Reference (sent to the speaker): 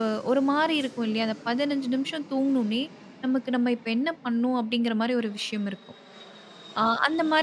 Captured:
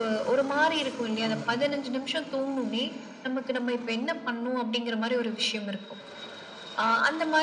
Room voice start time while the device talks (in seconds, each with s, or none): 1.3 s